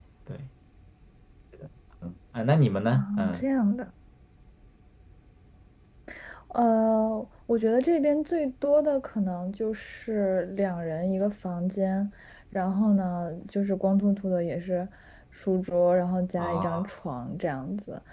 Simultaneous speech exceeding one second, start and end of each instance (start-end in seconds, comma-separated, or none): none